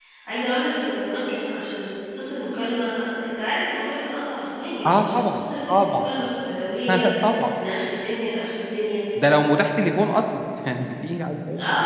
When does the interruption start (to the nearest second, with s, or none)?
5 s